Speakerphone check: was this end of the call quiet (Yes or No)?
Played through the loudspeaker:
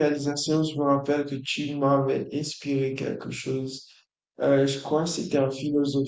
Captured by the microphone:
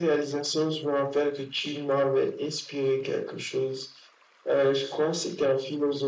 Yes